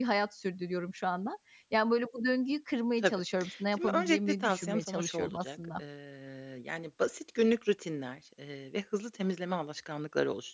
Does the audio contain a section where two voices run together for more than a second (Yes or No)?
Yes